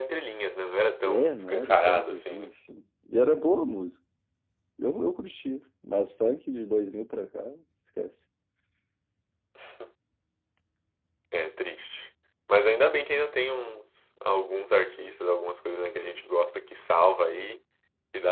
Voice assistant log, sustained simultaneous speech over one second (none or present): present